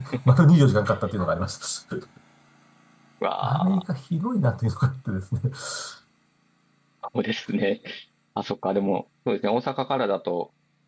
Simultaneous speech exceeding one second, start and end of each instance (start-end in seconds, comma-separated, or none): none